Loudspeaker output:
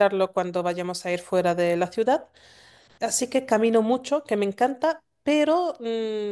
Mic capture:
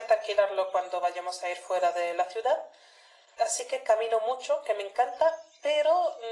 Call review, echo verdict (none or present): present